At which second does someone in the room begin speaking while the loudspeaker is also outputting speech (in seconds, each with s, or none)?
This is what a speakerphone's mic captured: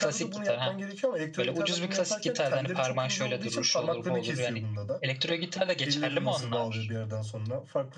none